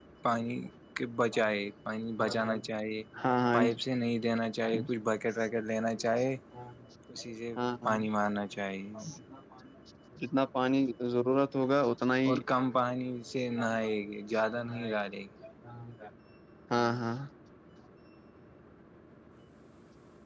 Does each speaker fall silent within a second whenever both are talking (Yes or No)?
Yes